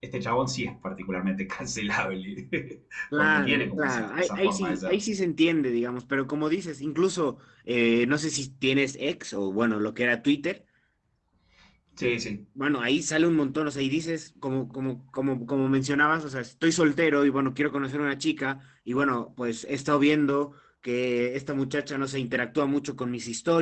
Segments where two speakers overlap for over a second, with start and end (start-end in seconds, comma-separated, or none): 3.2-5.0